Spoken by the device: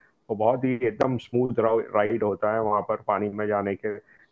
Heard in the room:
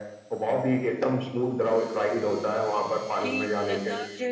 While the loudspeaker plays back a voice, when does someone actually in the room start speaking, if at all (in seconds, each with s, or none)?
3.2 s